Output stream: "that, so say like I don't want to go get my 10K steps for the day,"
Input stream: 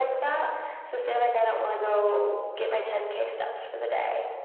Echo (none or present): present